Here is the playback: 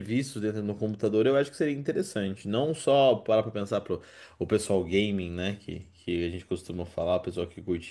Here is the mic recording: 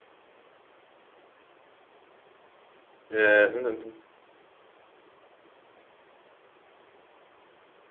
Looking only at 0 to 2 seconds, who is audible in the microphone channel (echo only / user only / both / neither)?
neither